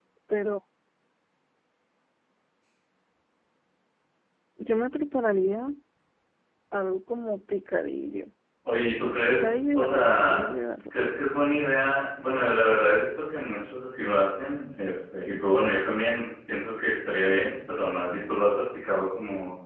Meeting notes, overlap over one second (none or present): present